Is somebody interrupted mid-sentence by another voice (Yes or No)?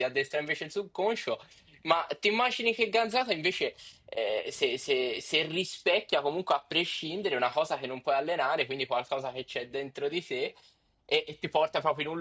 No